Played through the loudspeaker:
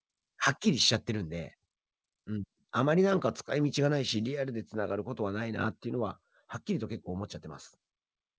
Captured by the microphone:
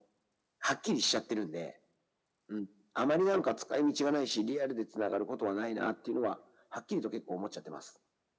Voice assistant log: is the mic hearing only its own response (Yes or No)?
Yes